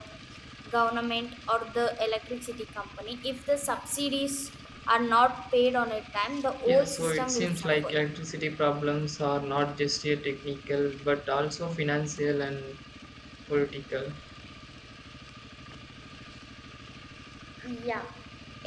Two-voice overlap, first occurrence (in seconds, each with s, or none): 6.7 s